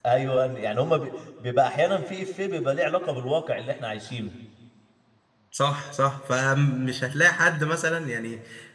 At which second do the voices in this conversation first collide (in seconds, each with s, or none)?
none